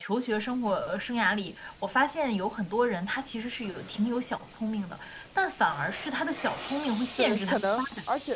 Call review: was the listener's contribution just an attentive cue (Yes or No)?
No